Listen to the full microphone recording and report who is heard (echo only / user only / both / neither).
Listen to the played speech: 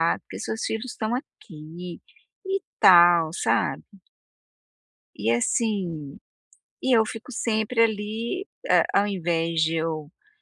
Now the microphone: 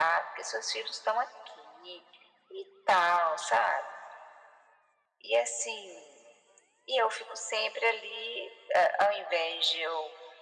echo only